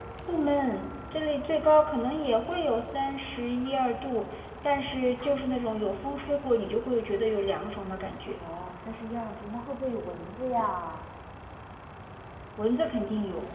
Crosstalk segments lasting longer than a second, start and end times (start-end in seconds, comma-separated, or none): none